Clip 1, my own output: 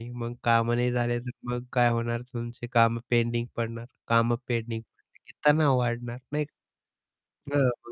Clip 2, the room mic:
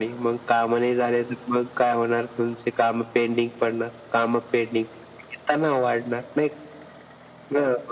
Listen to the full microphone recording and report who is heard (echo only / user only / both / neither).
echo only